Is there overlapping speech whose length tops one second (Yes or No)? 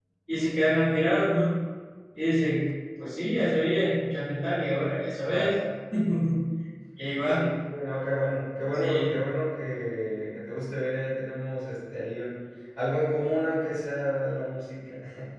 No